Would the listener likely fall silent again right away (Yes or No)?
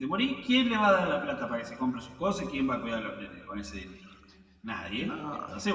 Yes